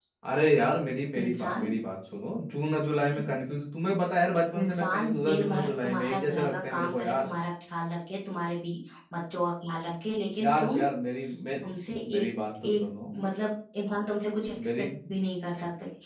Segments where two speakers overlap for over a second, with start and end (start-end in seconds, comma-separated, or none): 4.6-7.3